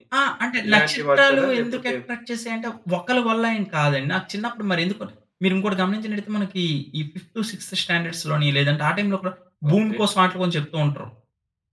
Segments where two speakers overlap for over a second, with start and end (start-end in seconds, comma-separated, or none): 0.7-1.9